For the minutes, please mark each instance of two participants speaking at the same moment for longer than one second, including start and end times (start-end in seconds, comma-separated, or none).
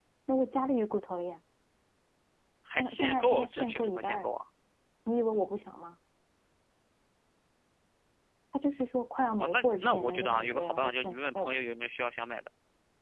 2.8-4.3, 9.4-11.6